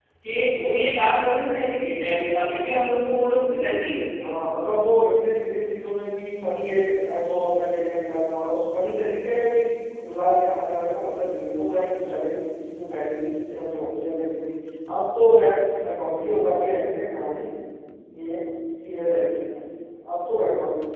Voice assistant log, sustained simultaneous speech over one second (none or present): none